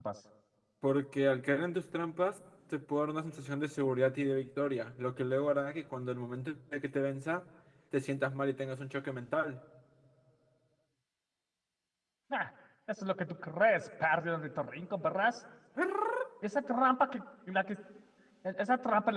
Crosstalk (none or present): none